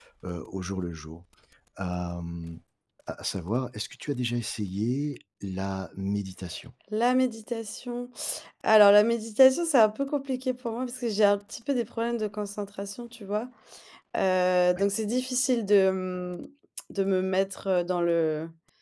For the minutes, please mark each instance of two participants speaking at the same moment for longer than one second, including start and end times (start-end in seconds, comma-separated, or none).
none